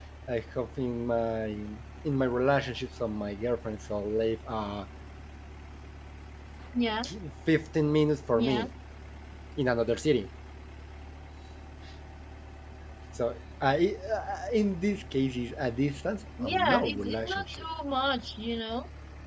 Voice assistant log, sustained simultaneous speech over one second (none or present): present